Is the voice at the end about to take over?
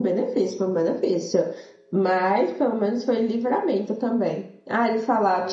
No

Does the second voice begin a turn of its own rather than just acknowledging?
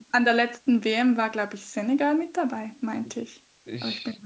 Yes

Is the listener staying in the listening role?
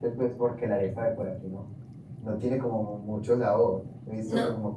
Yes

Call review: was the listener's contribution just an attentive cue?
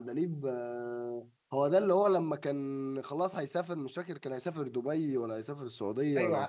No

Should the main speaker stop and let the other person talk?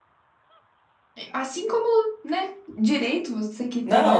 Yes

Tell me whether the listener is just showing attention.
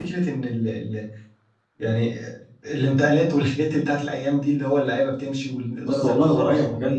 No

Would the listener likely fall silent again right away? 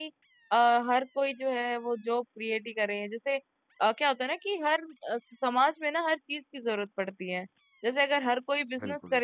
Yes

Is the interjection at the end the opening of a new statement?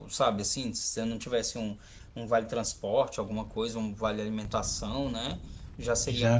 No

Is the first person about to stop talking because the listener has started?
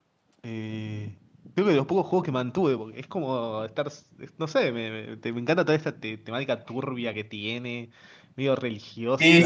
Yes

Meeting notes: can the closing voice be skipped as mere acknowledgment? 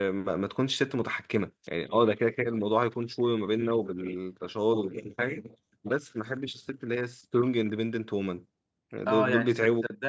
No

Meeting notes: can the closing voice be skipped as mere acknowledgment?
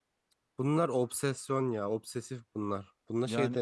Yes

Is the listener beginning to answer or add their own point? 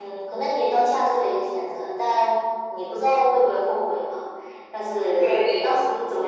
No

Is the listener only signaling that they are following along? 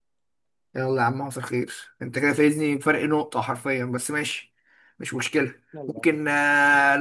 Yes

